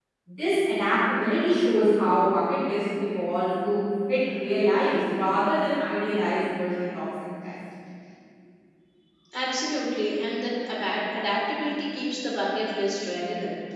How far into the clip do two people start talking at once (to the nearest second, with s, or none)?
none